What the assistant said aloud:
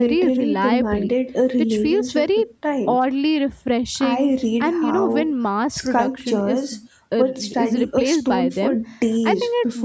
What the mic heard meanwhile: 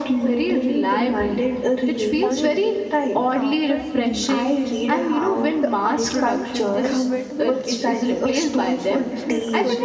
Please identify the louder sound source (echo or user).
echo